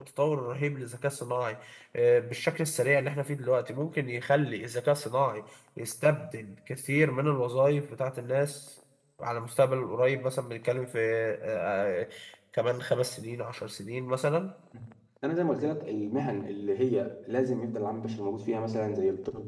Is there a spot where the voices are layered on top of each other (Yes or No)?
No